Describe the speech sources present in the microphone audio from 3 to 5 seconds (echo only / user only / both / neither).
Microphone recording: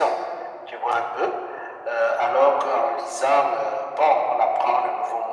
echo only